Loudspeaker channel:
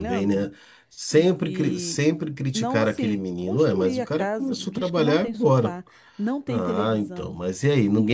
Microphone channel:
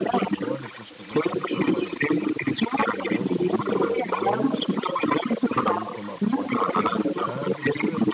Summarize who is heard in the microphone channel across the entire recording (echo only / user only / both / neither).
both